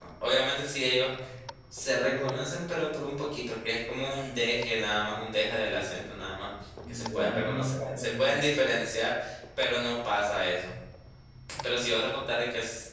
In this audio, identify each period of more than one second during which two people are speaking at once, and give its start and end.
6.9-8.4

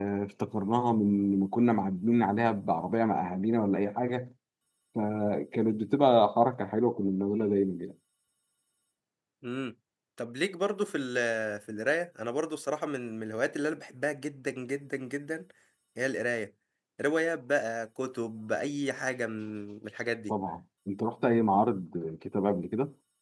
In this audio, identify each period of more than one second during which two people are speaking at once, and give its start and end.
none

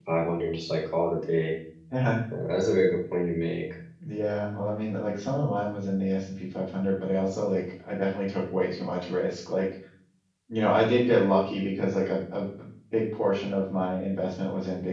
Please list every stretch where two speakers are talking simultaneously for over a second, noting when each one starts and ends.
none

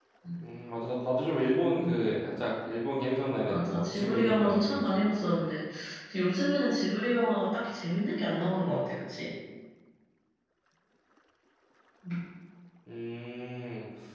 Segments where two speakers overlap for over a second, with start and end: 3.5-5.3

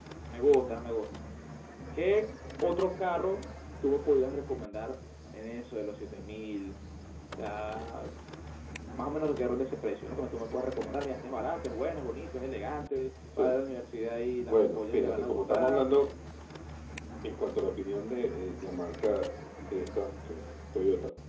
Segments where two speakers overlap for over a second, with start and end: 14.5-15.8

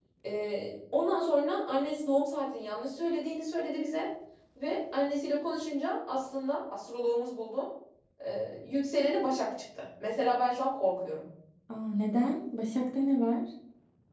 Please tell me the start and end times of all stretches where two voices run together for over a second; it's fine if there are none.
none

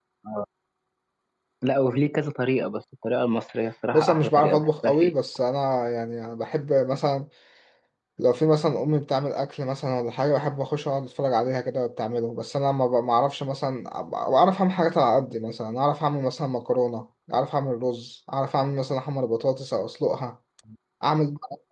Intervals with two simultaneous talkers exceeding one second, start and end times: 3.9-5.1

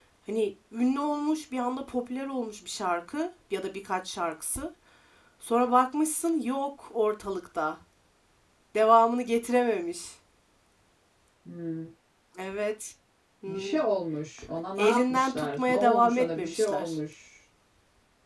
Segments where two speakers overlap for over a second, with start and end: 14.8-16.9

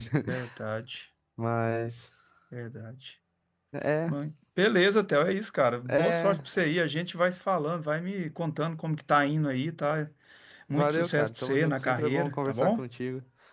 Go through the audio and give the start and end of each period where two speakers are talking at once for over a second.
10.7-12.8

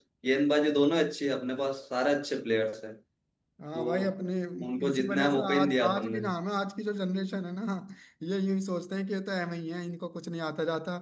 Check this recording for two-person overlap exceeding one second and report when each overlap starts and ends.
4.9-6.2

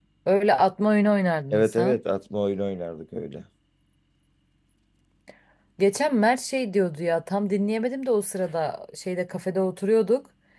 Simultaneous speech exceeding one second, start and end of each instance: none

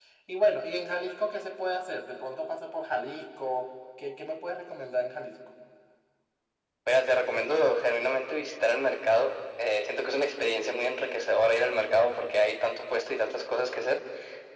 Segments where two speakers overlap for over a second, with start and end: none

